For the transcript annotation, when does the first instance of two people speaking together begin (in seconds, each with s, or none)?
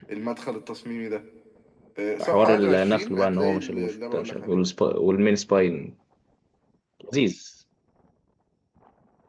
2.2 s